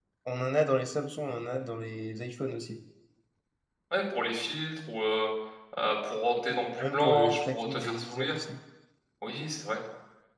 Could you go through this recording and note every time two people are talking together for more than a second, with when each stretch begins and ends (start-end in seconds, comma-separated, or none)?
6.8-8.4